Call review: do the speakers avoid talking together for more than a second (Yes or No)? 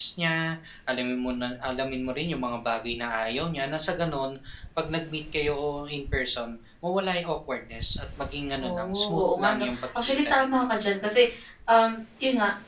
No